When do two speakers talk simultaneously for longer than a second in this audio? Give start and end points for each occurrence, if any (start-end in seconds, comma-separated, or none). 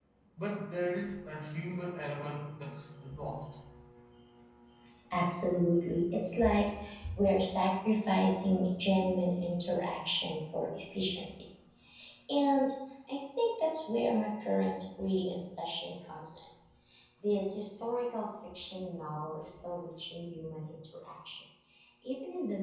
none